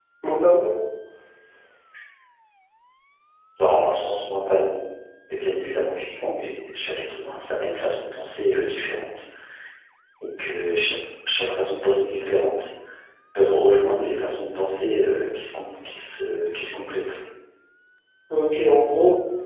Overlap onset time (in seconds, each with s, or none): none